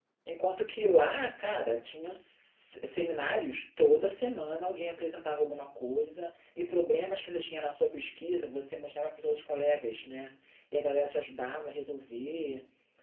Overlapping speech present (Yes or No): No